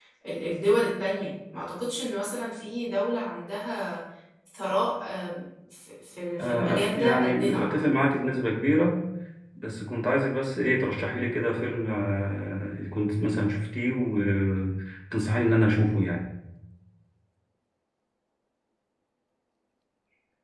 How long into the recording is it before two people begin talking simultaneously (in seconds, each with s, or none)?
6.4 s